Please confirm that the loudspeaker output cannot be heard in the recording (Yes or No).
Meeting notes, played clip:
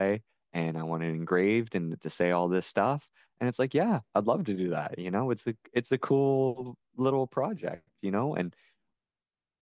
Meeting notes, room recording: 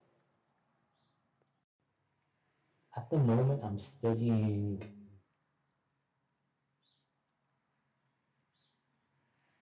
Yes